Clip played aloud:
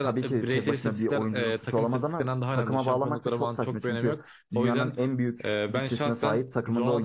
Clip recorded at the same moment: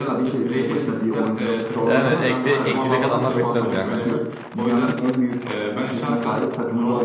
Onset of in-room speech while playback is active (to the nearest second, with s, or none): 2 s